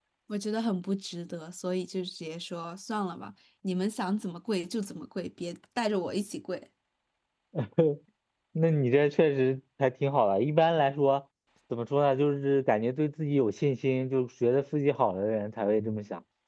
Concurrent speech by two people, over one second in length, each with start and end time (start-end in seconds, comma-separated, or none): none